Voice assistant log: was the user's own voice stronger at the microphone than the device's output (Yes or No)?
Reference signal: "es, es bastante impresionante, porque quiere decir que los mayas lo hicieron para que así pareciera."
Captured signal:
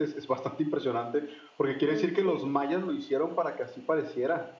No